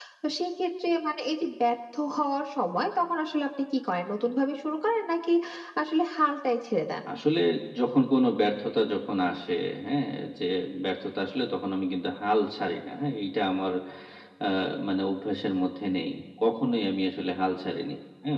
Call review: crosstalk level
none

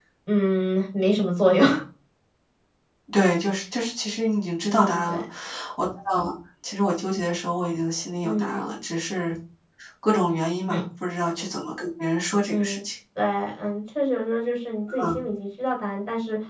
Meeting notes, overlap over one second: none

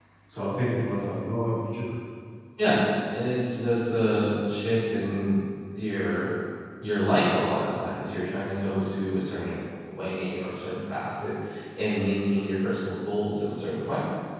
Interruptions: none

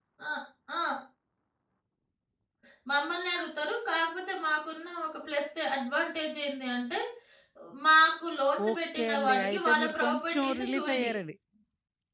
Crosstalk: present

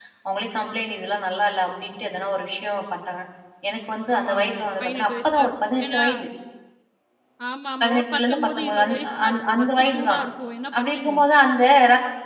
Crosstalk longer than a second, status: present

